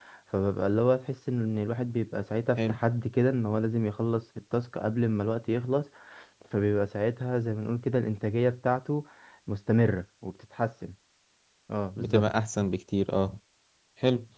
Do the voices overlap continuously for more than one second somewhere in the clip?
No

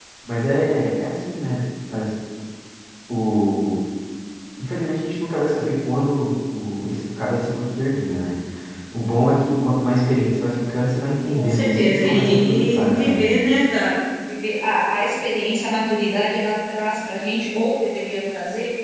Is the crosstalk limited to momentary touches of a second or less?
No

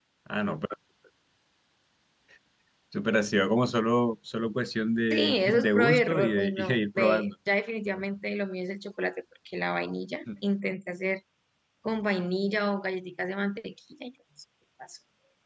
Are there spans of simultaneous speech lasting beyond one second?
Yes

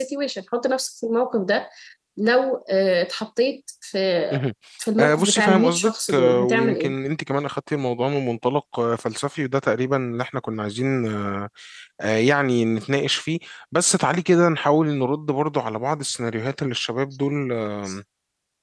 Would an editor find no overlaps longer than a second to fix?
No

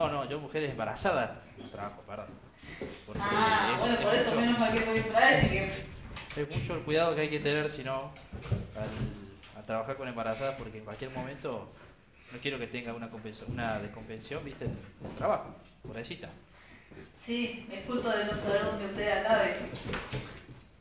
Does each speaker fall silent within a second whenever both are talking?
No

